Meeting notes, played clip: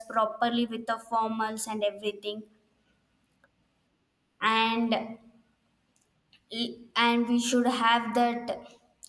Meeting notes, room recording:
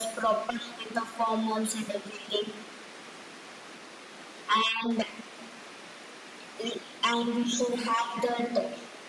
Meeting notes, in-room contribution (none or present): none